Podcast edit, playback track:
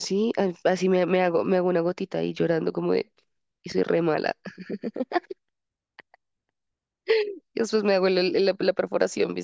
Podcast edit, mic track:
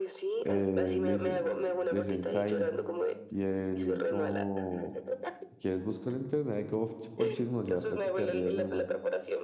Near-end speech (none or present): present